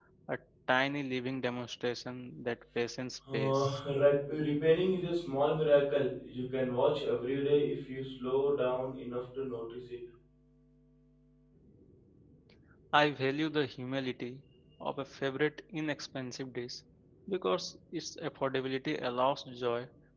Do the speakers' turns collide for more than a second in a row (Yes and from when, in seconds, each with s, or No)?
No